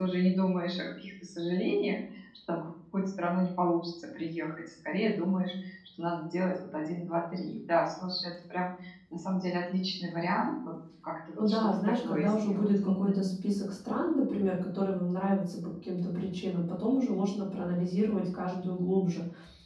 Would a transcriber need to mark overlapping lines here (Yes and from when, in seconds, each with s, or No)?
Yes, from 11.4 s